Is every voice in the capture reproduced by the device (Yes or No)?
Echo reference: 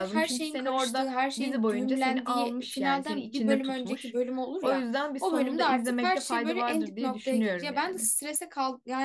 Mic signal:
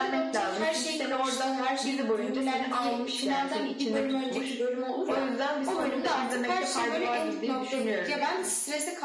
Yes